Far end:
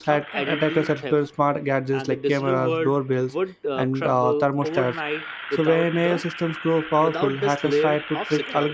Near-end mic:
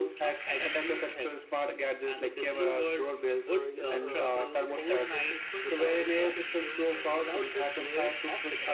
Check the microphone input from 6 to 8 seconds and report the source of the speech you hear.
both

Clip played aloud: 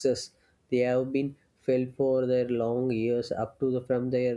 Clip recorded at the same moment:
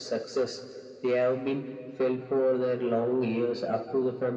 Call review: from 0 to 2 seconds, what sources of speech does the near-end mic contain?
echo only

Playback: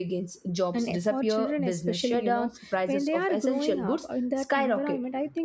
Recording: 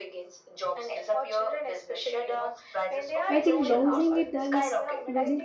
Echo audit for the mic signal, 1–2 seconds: echo only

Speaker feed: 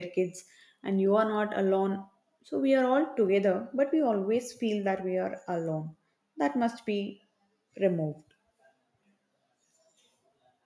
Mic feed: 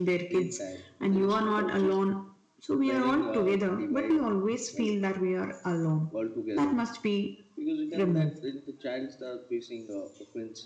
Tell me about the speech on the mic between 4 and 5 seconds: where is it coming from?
both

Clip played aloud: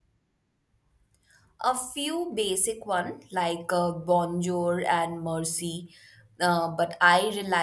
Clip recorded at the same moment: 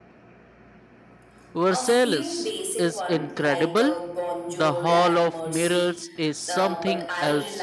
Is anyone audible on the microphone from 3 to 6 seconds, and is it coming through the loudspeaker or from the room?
both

